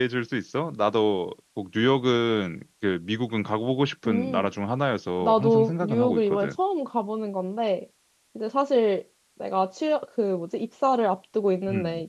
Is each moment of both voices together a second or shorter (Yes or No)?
No